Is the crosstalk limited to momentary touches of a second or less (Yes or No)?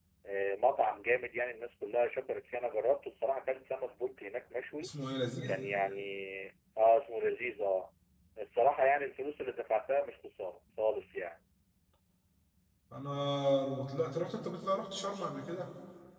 Yes